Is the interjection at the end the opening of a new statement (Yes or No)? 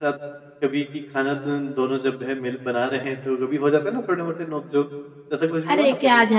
Yes